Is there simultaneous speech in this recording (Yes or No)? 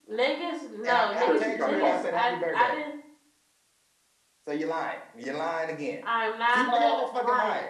Yes